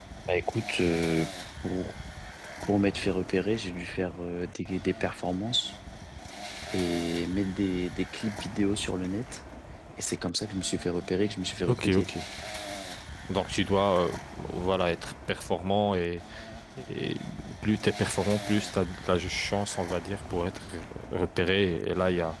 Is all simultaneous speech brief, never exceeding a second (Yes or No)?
Yes